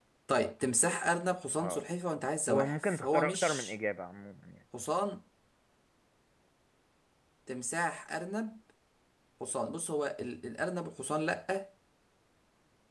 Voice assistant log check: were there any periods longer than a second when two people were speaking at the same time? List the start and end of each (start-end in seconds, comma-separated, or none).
2.5-3.7